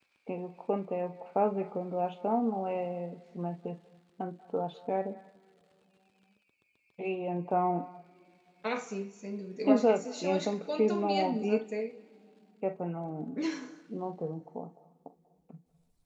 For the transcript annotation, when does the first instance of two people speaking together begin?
9.7 s

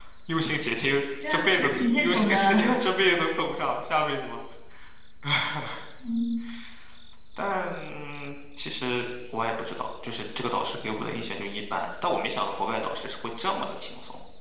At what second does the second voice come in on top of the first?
1.3 s

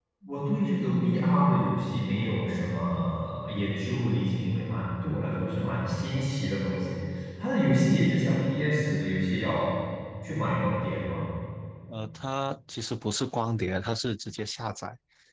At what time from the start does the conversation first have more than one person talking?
none

